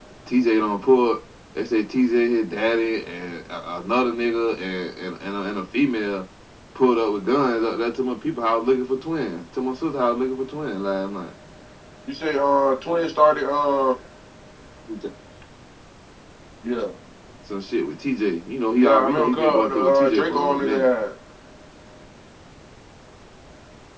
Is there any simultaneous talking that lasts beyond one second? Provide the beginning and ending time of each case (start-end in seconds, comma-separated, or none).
18.7-20.9